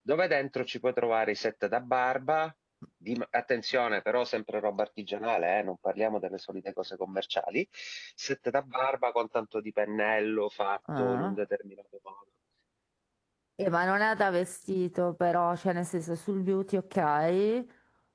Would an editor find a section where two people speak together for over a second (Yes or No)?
No